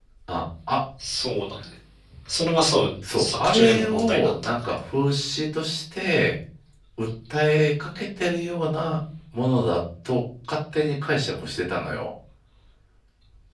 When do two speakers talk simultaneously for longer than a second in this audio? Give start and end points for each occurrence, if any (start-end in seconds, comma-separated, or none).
3.0-4.5